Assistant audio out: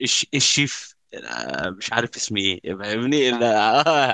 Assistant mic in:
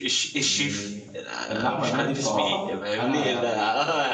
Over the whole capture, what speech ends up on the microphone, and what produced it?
both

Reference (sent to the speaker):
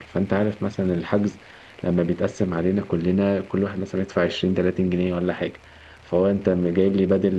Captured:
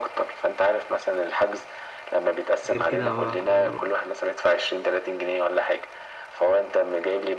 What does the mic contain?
both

